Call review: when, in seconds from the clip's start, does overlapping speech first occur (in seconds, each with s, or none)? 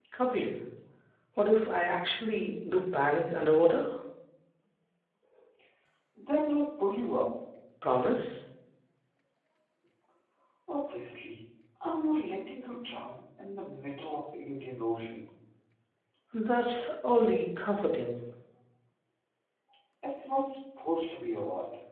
none